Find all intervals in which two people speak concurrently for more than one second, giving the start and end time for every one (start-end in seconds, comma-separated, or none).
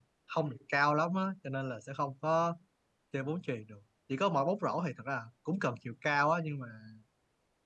none